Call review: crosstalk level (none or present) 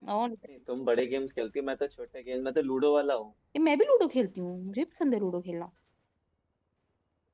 none